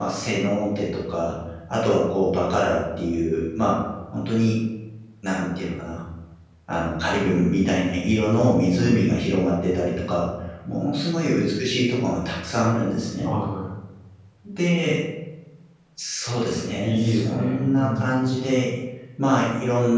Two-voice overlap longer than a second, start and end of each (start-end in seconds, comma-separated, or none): 16.8-18.2